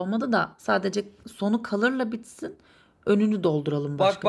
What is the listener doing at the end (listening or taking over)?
taking over